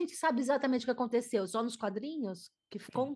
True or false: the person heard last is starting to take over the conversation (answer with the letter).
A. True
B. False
A